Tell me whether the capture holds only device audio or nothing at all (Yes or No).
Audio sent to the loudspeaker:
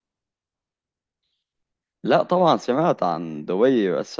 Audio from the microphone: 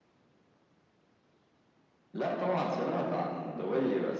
Yes